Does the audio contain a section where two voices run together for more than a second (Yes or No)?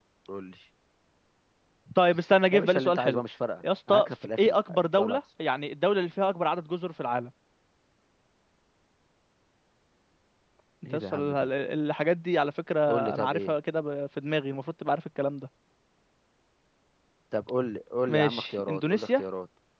Yes